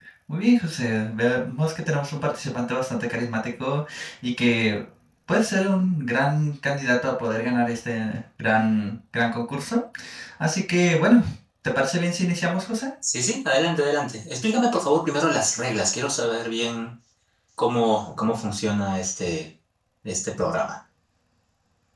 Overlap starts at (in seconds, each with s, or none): none